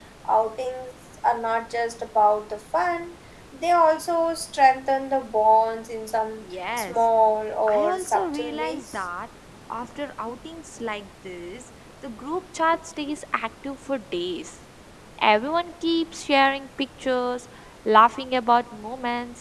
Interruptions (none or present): present